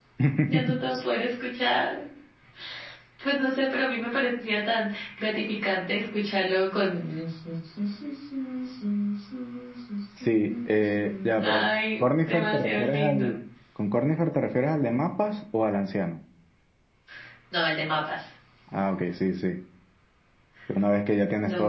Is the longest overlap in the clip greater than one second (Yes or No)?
Yes